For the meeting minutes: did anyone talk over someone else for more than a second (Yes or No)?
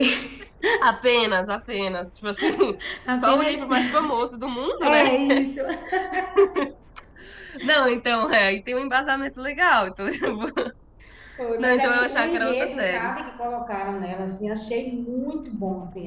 Yes